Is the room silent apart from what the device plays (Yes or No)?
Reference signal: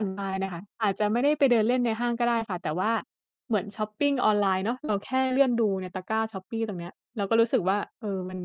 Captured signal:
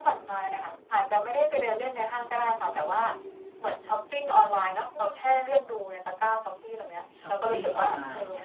No